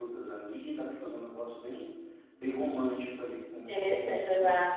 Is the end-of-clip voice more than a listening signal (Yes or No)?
Yes